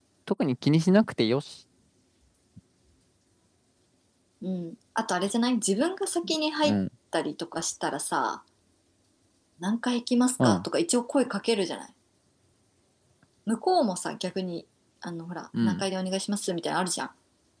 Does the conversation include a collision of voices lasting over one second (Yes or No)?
No